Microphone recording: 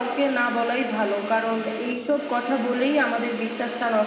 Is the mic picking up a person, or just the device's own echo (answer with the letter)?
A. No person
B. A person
A